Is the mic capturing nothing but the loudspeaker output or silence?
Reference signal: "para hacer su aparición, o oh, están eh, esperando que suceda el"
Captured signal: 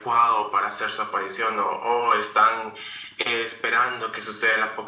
Yes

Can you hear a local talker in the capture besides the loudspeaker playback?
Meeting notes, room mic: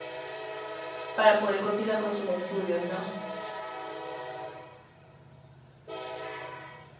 Yes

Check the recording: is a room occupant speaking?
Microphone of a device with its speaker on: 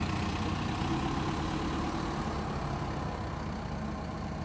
No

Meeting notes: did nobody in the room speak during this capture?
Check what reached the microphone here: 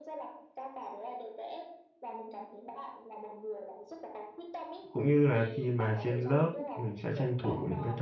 No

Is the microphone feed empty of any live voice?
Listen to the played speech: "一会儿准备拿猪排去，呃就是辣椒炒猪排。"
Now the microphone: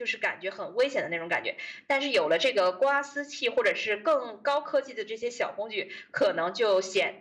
No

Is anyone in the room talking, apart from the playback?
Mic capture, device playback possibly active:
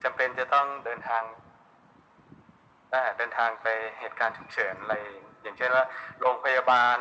No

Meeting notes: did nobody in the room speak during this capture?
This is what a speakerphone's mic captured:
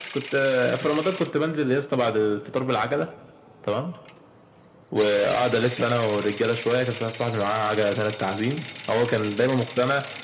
Yes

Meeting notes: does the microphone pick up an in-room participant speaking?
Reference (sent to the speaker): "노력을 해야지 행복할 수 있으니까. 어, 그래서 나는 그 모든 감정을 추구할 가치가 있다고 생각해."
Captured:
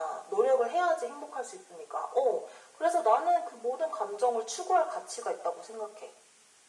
No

